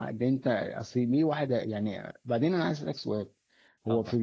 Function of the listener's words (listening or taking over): listening